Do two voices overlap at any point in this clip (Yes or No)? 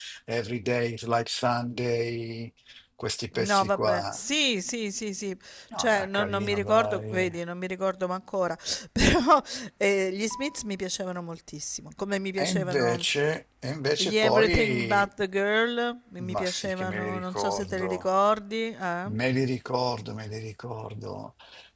Yes